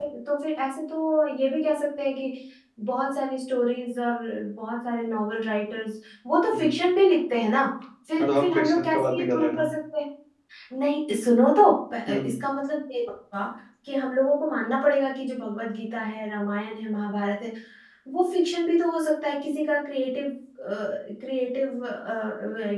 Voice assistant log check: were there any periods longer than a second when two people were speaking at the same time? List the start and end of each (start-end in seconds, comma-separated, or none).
8.2-9.7